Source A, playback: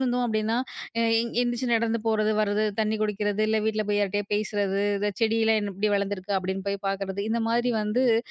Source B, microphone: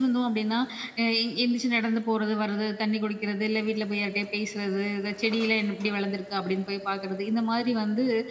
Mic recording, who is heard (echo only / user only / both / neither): echo only